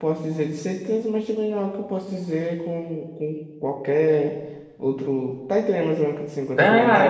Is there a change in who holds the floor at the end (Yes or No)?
Yes